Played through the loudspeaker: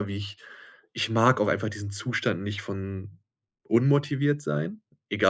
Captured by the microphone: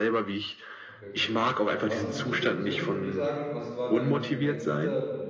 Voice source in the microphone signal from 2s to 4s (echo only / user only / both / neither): both